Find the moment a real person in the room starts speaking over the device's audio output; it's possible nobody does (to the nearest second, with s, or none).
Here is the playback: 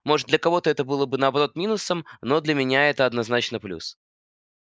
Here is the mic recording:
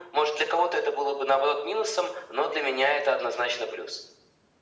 none